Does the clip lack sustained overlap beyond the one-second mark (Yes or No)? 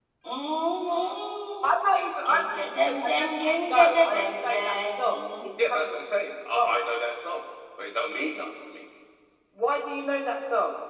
No